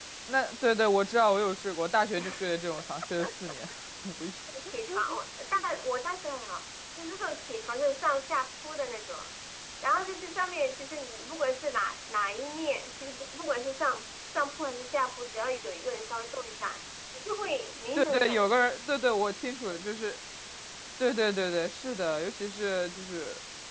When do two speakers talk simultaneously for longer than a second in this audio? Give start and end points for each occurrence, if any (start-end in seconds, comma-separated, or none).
none